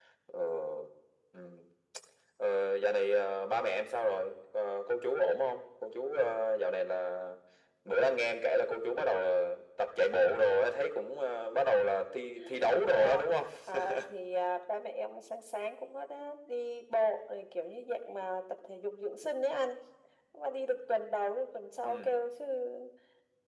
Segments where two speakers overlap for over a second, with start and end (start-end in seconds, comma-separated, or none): none